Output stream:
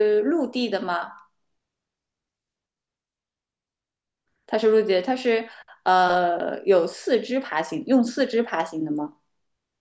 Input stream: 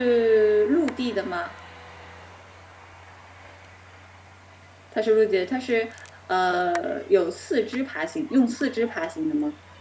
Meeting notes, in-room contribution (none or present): none